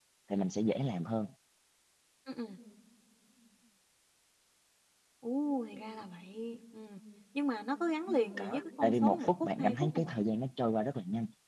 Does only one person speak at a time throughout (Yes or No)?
No